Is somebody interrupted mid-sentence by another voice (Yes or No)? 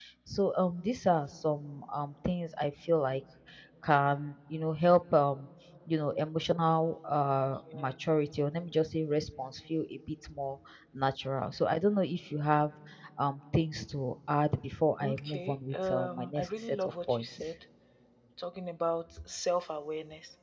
Yes